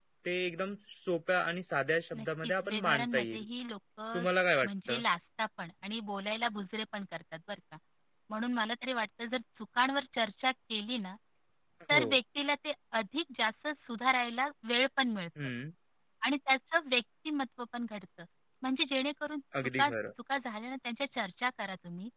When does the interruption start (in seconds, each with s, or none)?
2.1 s